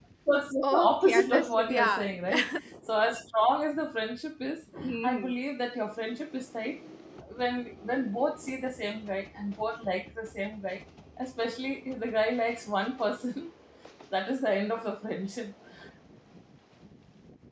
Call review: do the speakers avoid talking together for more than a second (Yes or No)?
No